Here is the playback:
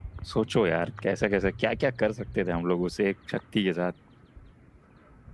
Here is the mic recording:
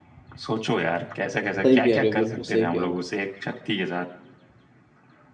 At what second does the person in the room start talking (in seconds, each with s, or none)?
1.6 s